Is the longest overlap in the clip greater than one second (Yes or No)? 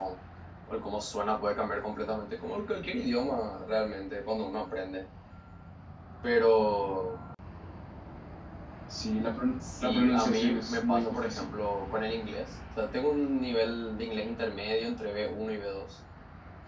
Yes